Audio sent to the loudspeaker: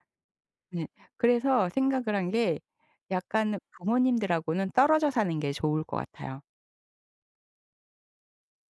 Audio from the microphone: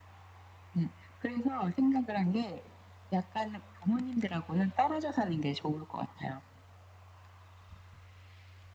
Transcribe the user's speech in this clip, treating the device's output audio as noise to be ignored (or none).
none